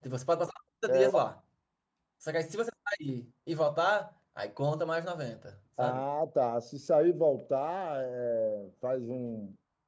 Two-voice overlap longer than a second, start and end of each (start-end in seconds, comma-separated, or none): none